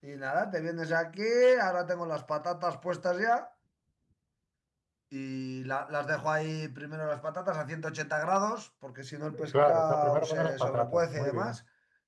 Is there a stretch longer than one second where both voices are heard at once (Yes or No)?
Yes